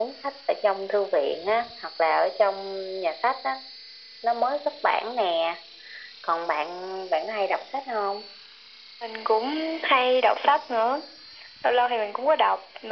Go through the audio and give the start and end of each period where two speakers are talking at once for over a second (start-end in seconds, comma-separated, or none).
none